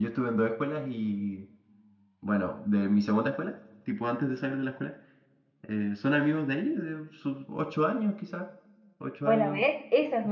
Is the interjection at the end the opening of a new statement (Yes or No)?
Yes